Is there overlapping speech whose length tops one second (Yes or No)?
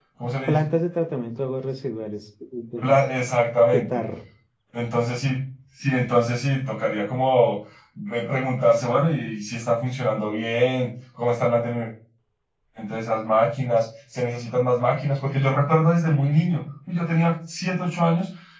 No